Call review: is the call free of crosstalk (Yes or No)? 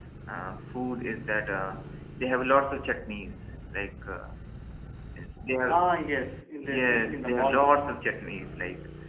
No